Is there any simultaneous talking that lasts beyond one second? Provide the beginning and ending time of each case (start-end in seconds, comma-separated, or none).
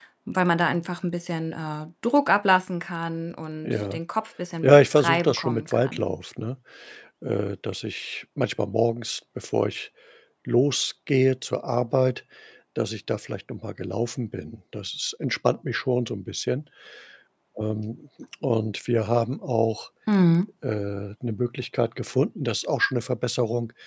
4.6-6.1